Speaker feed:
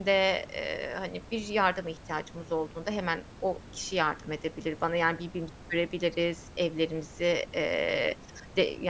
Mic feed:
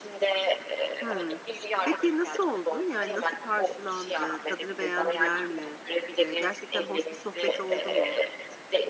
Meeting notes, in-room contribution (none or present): present